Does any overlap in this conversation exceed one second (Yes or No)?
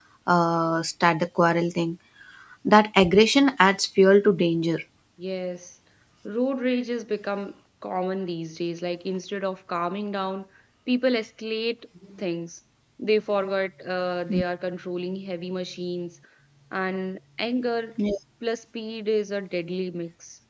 No